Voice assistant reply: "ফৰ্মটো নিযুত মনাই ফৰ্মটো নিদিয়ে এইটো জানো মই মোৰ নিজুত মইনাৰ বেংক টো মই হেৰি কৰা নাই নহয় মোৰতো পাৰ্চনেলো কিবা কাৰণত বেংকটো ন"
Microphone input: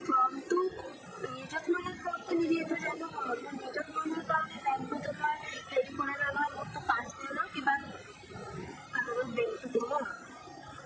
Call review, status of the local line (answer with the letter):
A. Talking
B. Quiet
A